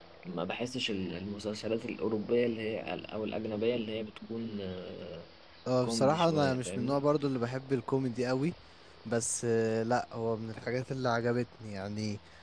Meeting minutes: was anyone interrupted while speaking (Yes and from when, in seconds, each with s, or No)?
Yes, from 5.8 s